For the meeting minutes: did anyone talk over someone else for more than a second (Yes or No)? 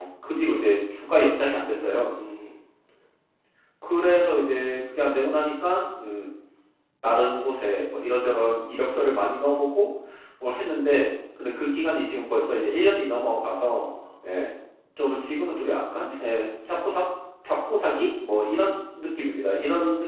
No